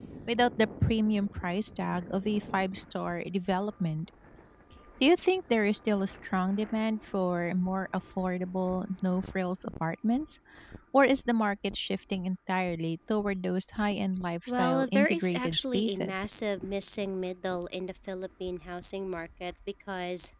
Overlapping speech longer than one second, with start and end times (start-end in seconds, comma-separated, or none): 14.5-16.3